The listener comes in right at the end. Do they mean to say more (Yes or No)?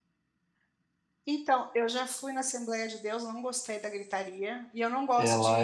No